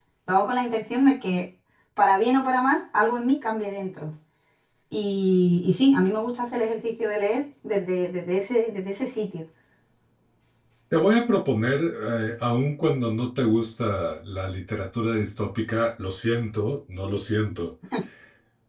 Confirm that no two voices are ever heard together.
Yes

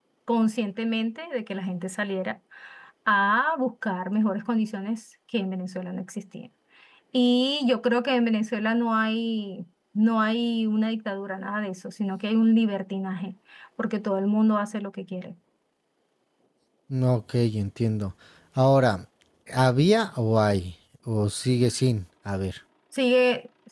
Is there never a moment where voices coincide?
Yes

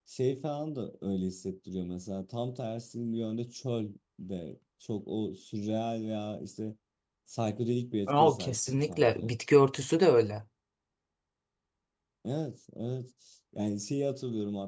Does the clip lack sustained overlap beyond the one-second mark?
No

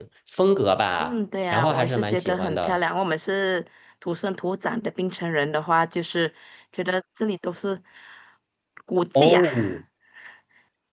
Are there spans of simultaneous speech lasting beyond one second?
Yes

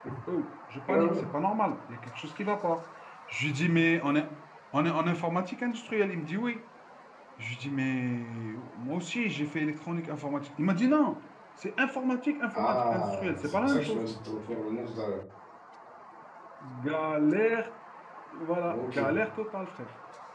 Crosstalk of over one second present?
Yes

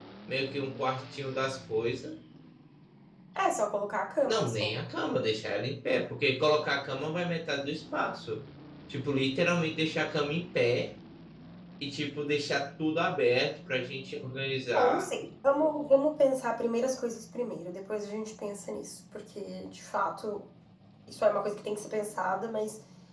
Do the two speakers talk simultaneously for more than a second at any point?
No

